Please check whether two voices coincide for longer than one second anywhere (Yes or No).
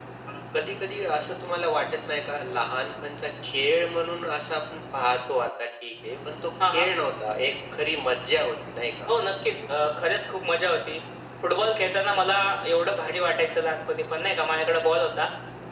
No